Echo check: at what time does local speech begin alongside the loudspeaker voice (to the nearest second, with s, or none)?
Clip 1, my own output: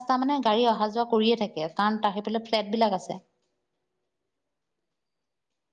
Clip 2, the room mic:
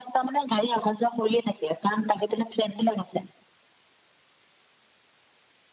none